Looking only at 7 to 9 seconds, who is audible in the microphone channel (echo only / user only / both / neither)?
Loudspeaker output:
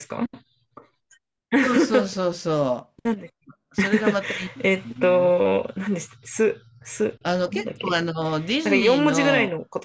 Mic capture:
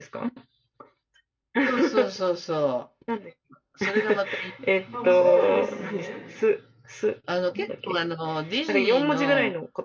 echo only